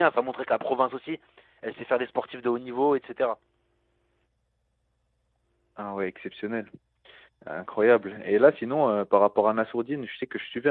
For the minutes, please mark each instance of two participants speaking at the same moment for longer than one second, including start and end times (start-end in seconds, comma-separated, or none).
none